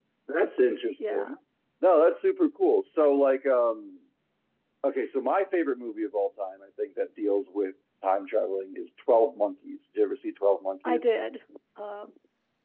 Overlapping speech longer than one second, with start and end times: none

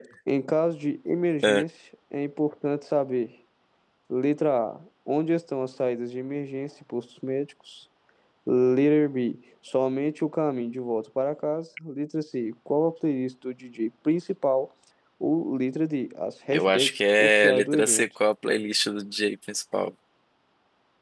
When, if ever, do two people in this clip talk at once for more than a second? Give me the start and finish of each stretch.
16.5-18.0

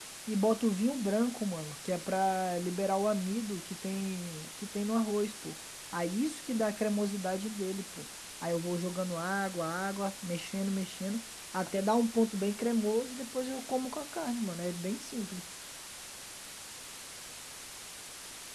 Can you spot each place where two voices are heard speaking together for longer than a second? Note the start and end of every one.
none

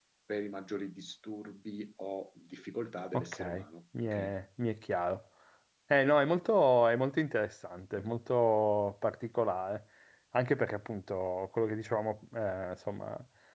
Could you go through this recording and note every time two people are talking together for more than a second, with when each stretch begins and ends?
none

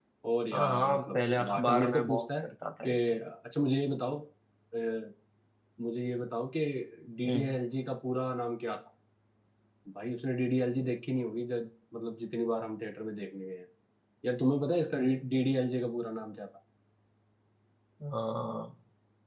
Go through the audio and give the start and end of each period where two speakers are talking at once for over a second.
0.5-2.5

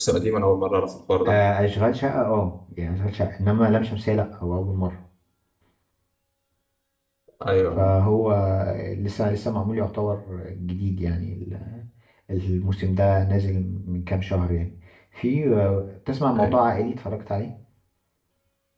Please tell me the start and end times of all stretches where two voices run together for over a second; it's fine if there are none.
none

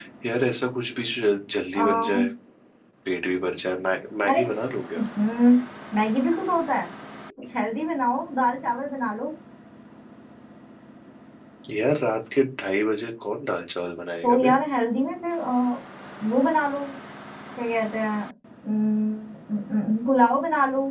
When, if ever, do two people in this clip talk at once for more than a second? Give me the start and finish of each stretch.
none

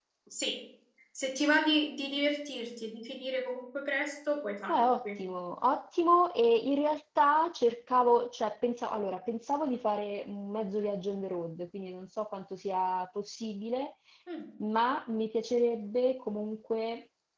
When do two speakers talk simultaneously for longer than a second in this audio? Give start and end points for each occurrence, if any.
none

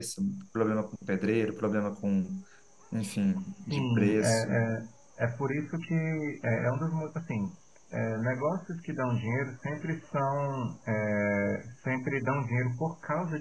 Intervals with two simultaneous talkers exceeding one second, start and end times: 3.4-4.6

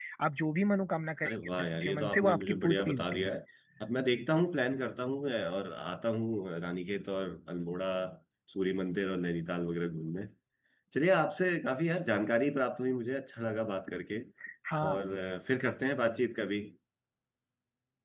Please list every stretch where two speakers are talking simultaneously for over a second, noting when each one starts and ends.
1.2-3.3

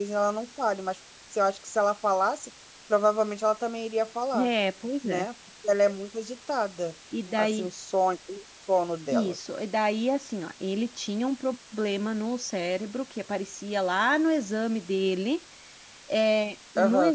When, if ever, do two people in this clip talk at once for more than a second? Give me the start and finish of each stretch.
none

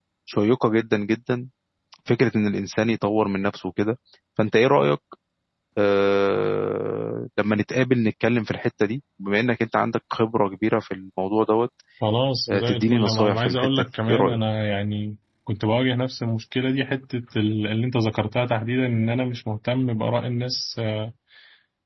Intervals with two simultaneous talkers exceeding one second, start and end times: 12.5-14.4

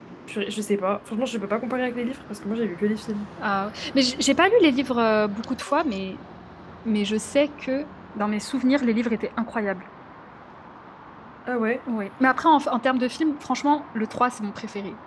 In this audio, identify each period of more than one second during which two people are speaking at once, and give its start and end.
none

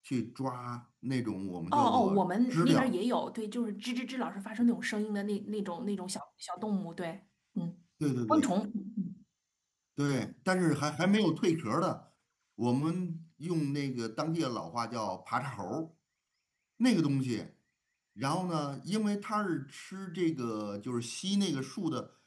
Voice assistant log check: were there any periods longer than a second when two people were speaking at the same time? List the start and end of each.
1.7-2.9

